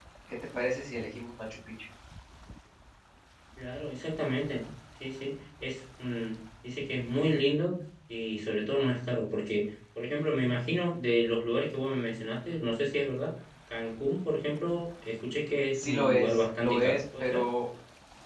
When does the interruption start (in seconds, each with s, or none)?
15.5 s